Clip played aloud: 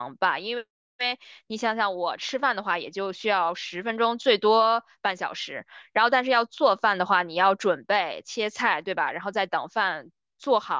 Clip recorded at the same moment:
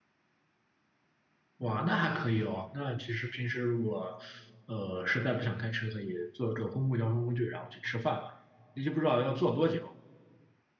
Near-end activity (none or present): present